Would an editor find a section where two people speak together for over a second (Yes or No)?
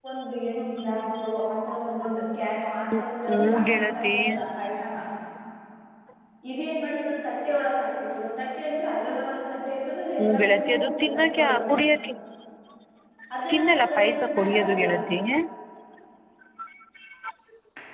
Yes